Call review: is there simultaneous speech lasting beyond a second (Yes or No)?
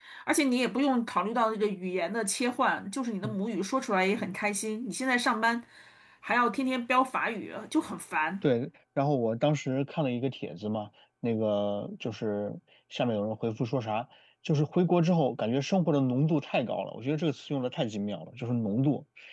No